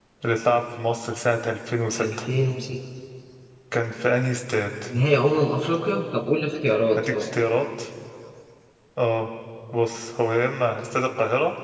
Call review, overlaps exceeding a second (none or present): none